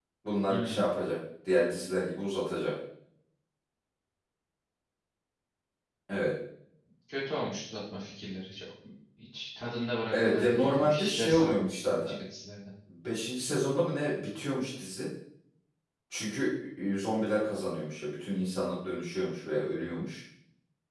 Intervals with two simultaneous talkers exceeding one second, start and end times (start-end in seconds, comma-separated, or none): 10.1-12.1